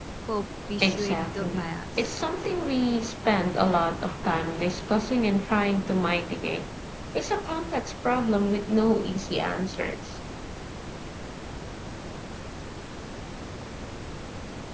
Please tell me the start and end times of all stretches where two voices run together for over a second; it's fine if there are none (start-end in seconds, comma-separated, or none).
0.8-2.2